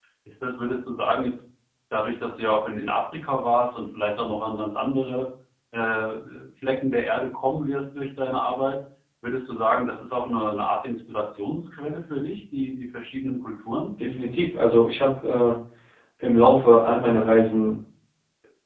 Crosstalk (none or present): none